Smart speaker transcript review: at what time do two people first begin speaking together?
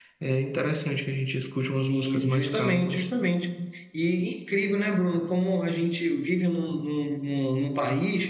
2 s

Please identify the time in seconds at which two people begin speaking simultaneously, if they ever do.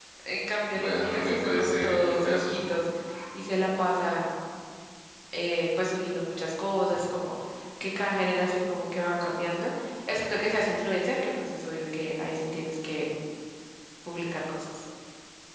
1 s

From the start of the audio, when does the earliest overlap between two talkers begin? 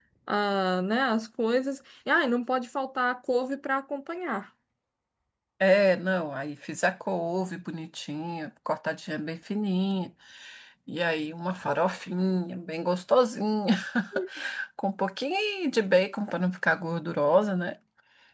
none

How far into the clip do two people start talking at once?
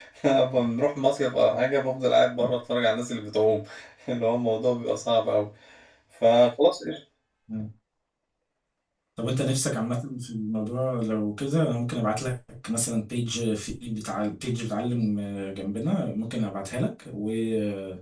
none

